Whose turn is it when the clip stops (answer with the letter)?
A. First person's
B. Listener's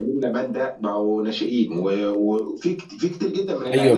B